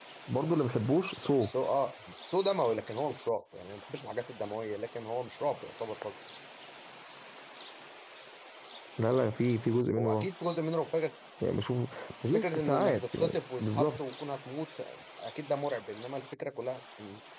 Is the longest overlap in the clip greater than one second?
Yes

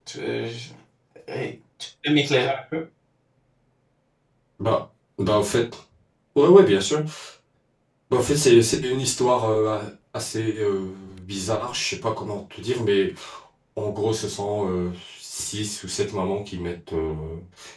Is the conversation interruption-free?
Yes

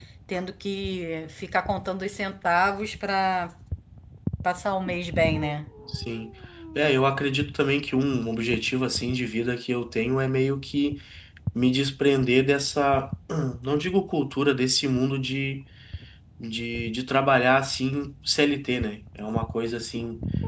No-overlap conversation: Yes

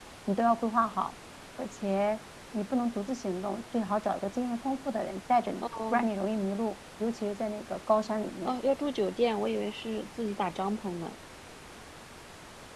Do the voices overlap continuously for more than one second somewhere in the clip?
No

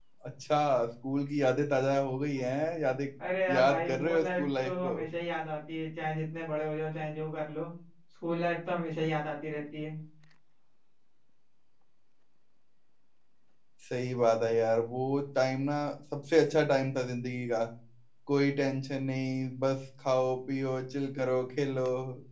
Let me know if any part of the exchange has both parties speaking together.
Yes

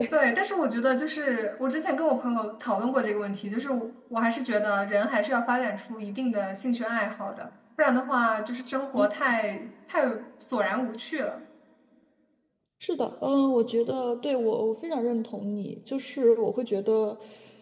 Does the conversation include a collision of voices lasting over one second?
No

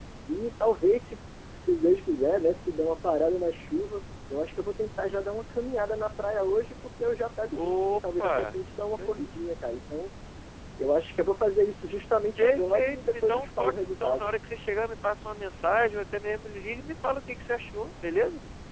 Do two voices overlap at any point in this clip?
Yes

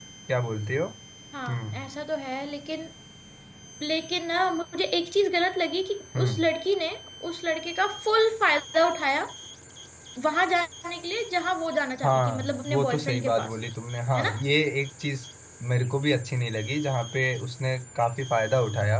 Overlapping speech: Yes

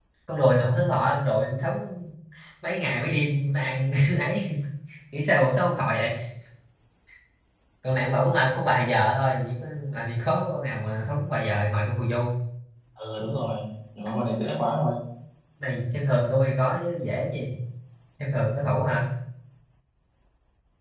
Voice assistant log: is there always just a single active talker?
Yes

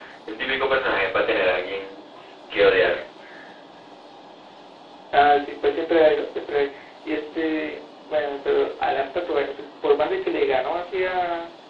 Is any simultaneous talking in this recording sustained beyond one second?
No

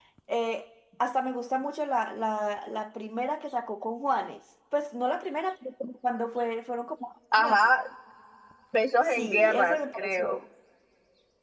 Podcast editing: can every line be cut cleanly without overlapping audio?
No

